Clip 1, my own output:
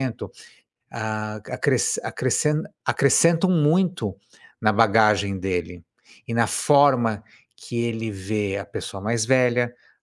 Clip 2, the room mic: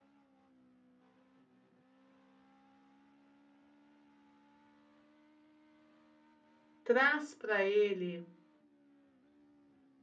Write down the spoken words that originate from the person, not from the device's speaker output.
traz para ele,

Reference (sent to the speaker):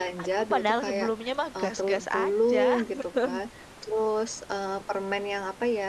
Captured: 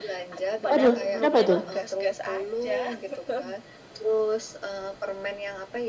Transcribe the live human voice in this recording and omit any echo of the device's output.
Waduh, kenapa tuh?

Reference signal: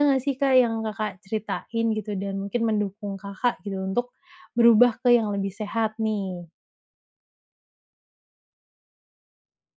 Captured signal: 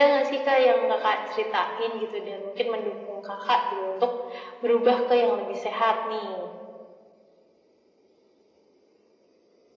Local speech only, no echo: none

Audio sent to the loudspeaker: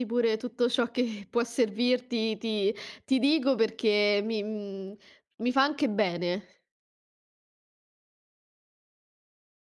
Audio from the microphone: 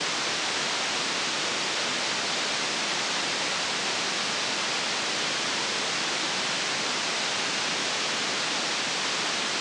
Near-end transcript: none

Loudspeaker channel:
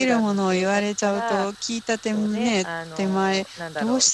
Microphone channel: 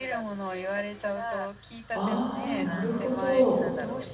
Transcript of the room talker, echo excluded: ああ、なるほど。

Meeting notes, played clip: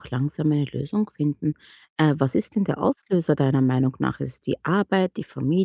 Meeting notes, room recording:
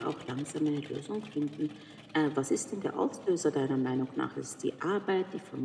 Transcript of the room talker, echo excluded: none

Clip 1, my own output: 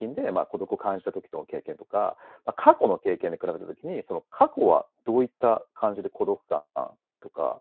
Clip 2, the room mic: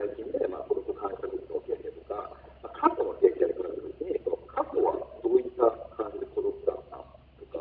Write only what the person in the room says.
none

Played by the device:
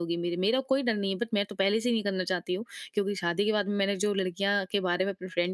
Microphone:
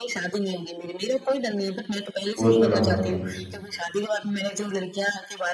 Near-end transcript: वो तो ना होती।

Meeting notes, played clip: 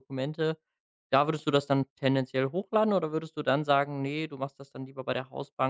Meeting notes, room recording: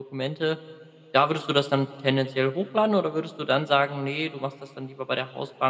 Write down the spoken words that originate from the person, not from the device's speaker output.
none

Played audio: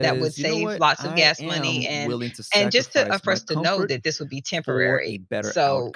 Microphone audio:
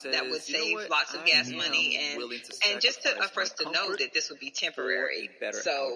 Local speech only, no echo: mhm,

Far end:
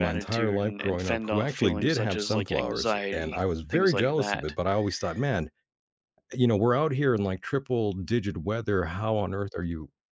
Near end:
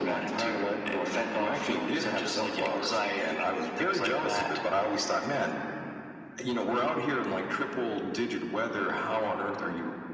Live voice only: none

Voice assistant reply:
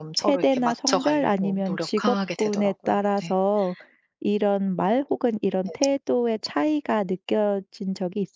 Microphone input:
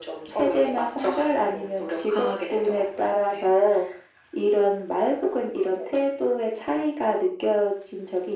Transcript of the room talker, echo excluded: none

